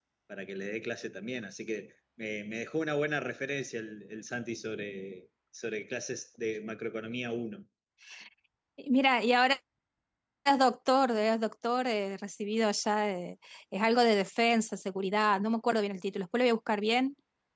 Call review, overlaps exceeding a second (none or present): none